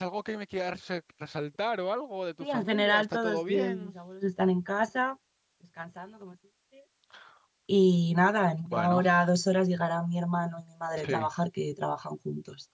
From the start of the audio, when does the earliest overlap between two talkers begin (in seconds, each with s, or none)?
2.4 s